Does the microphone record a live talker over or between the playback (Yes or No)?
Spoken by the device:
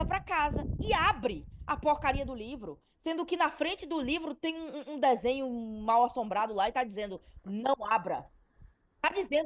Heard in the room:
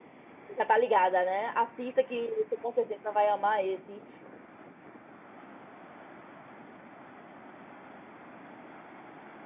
Yes